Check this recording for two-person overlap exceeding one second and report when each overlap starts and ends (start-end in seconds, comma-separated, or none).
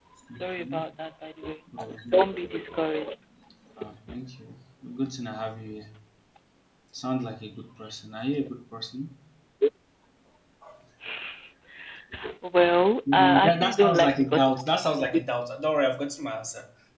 13.1-14.5